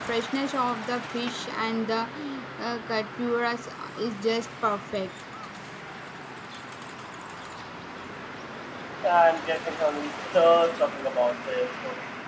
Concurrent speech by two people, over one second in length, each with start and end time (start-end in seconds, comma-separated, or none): none